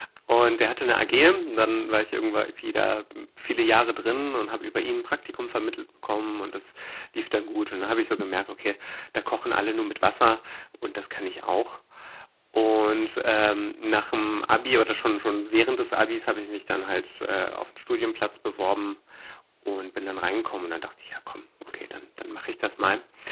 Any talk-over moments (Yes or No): No